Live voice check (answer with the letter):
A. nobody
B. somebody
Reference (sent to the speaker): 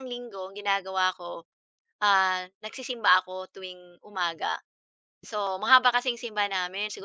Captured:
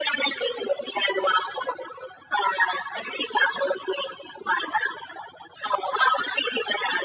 A